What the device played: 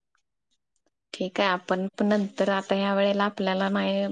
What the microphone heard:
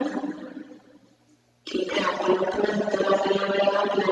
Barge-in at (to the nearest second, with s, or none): none